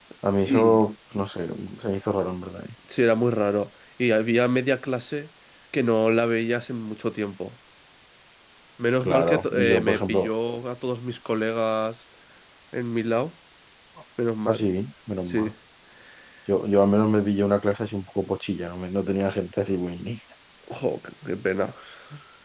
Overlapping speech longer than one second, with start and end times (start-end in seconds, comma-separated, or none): 9.0-10.3